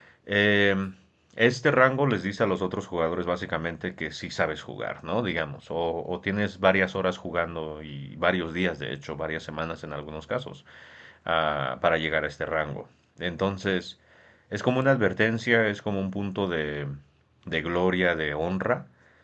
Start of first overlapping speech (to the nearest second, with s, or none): none